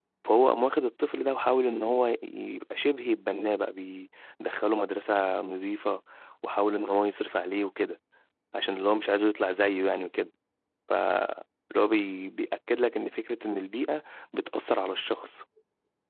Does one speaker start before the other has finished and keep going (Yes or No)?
No